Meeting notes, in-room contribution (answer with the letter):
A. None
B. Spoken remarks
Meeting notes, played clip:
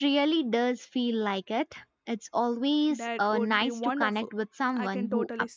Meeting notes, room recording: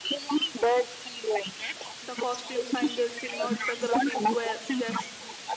B